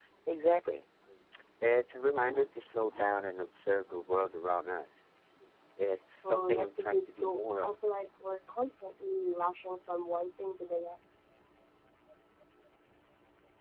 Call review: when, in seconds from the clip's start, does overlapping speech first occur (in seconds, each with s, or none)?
6.2 s